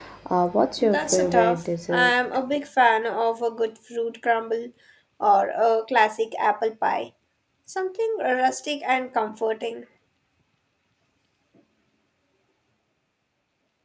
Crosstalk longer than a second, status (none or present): present